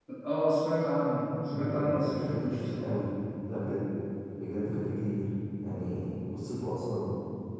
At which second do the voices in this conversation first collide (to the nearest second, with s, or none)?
2 s